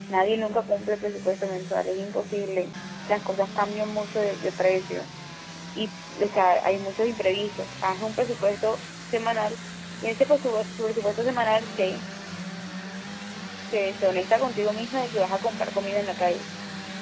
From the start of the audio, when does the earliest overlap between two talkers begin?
none

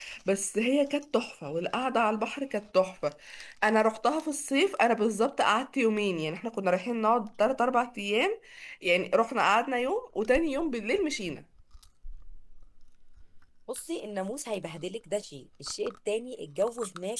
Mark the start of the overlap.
none

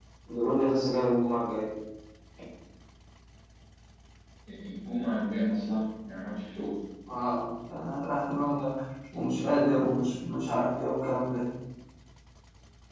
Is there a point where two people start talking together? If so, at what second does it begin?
none

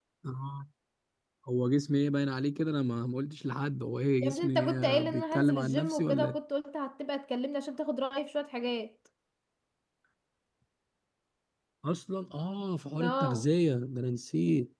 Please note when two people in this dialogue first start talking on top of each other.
4.2 s

